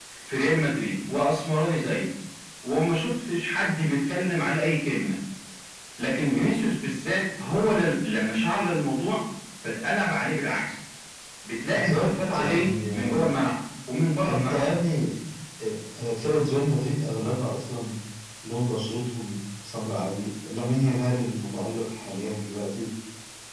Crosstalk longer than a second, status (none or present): present